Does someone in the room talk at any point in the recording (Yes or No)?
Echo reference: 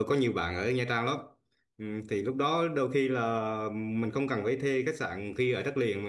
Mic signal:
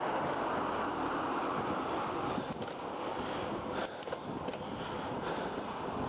No